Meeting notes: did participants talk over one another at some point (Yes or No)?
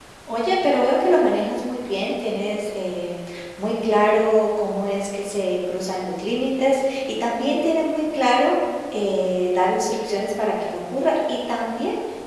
No